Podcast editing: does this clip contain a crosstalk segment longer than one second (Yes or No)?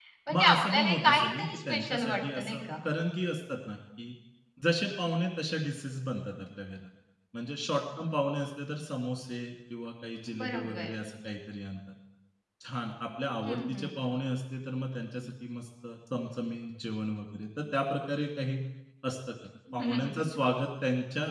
Yes